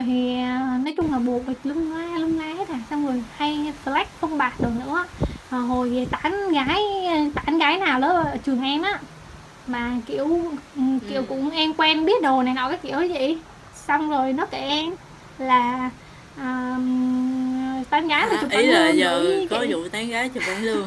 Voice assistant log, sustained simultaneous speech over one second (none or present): present